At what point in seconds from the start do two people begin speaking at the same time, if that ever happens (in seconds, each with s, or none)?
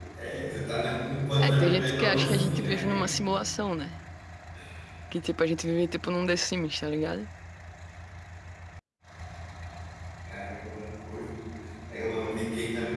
1.4 s